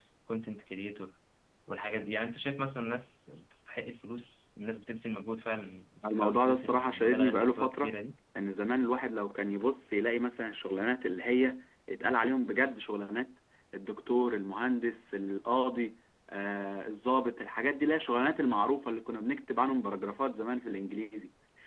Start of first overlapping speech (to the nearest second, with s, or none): 6 s